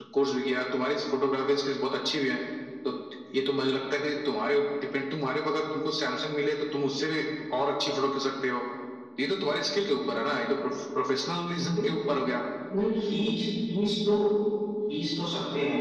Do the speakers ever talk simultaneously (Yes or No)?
No